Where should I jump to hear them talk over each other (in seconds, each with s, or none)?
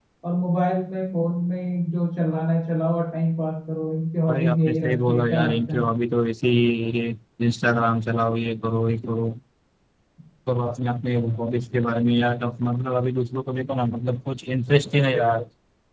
4.3 s